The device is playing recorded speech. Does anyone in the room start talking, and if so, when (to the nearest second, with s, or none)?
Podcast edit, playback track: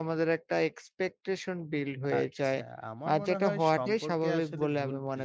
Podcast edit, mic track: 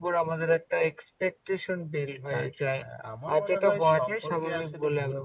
none